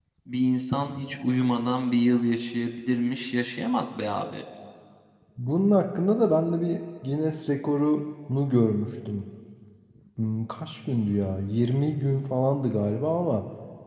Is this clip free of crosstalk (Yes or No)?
Yes